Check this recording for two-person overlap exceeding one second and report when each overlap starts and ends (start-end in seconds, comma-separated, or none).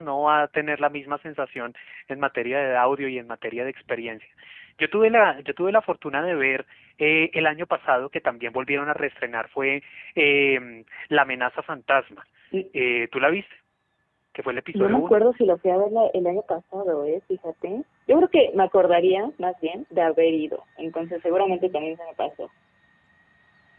none